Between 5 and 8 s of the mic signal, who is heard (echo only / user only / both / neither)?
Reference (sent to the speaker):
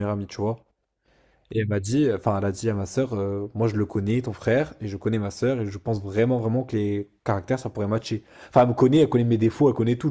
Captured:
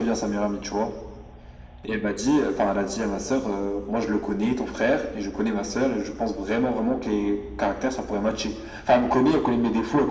echo only